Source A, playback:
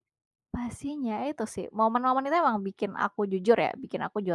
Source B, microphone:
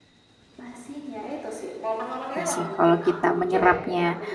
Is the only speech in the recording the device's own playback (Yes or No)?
No